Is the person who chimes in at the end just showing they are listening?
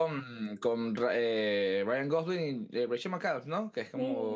No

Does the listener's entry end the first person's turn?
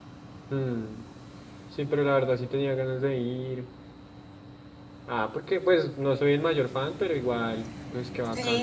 Yes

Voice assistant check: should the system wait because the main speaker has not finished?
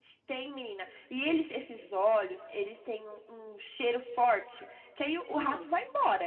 Yes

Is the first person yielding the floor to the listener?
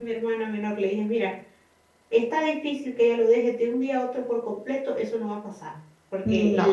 No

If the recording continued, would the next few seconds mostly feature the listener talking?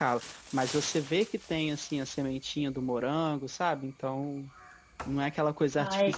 No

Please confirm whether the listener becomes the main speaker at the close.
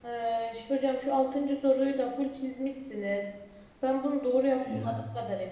No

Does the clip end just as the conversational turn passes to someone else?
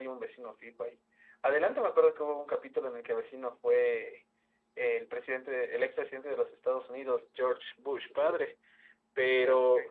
No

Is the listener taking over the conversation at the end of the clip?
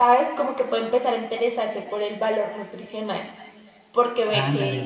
No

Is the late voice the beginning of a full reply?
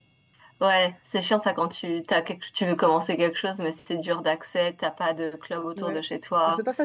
Yes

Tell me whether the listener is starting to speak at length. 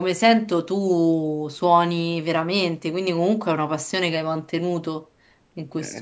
Yes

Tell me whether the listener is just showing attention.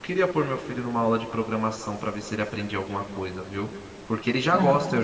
Yes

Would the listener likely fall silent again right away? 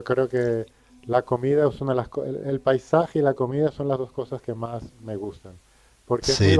Yes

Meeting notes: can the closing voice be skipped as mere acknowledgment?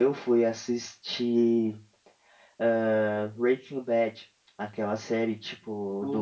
Yes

